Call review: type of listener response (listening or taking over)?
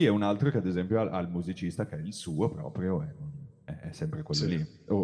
listening